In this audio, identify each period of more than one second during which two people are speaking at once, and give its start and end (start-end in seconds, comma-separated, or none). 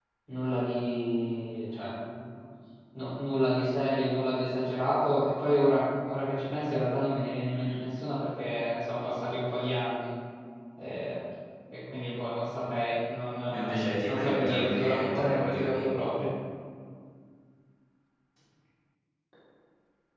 14.0-16.0